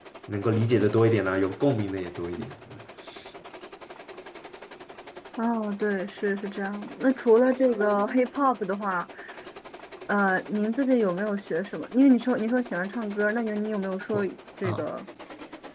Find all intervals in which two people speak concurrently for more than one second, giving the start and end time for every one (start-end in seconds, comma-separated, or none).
none